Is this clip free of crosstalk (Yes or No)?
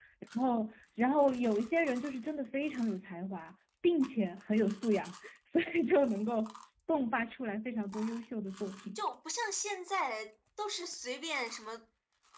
Yes